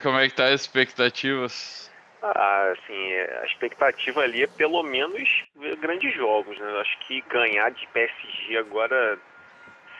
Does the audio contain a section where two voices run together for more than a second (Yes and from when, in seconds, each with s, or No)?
No